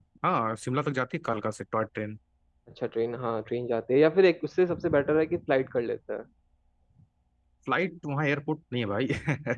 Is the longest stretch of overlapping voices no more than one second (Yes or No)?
Yes